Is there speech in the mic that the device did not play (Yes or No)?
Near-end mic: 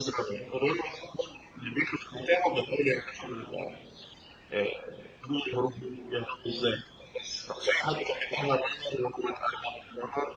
No